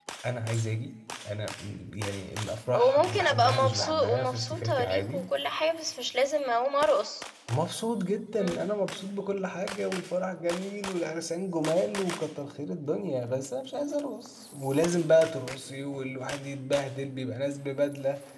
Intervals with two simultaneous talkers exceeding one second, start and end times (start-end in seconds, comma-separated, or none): 2.7-5.2